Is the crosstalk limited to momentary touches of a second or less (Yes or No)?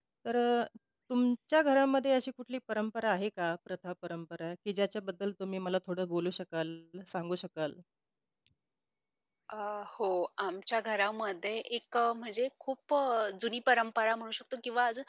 Yes